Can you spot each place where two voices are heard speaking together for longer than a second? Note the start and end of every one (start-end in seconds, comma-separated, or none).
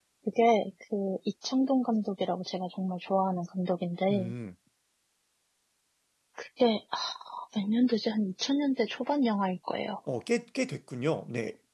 none